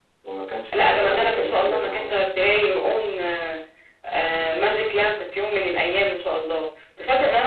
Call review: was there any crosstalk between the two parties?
Yes, from 0.7 s

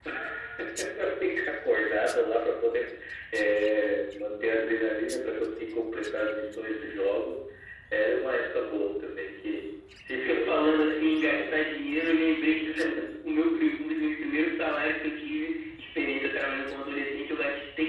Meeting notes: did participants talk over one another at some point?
Yes, from 10.2 s

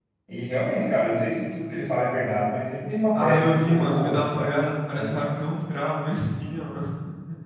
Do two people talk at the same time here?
Yes, from 3.1 s

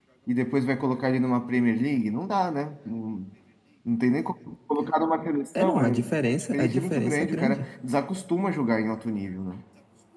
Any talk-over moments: Yes, from 5.6 s

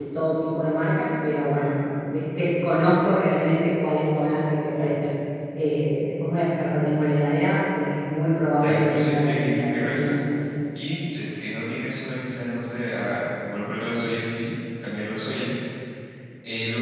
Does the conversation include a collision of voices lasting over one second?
Yes, from 8.6 s

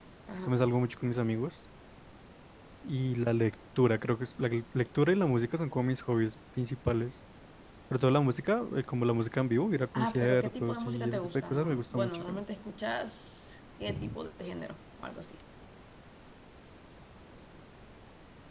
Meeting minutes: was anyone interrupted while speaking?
Yes, from 10.0 s

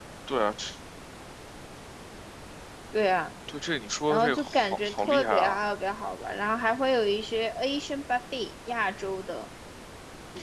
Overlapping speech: Yes, from 4.1 s

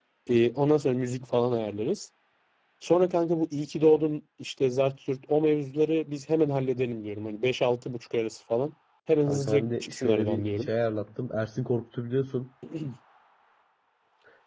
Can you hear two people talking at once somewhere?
Yes, from 9.3 s

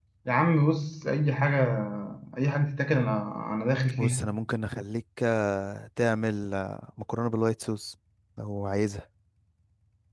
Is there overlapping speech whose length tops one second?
No

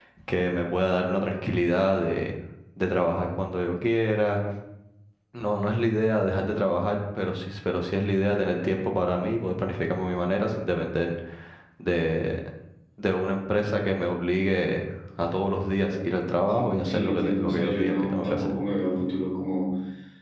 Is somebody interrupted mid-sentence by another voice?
Yes, from 16.5 s

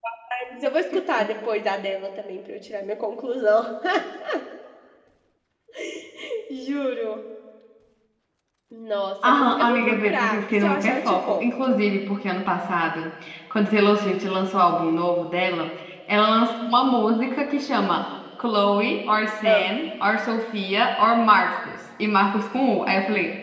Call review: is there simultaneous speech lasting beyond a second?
Yes, from 9.2 s

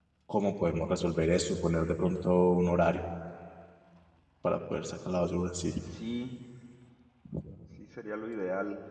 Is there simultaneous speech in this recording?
No

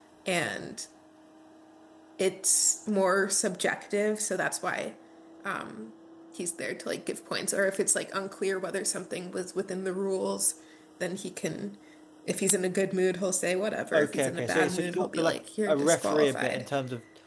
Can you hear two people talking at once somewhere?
Yes, from 13.9 s

